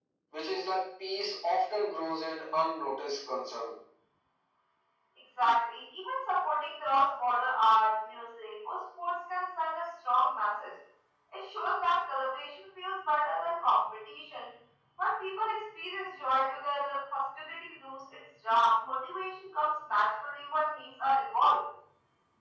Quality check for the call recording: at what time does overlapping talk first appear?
none

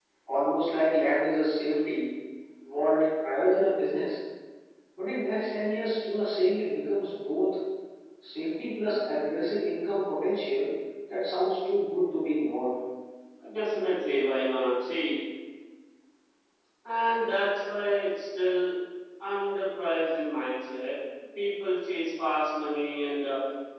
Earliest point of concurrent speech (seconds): none

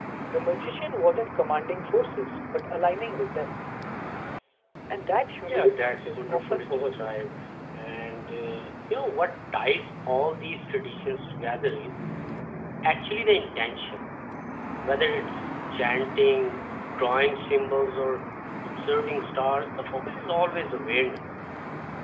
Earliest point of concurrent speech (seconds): 5.4 s

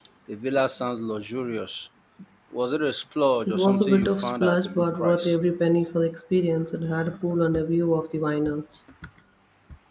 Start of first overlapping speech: 3.5 s

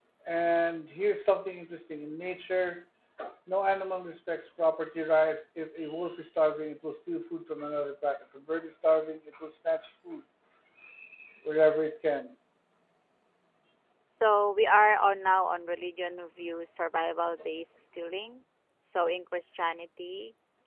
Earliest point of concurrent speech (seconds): none

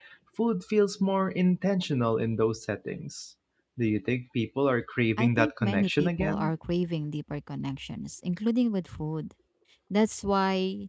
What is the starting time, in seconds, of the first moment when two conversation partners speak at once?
5.2 s

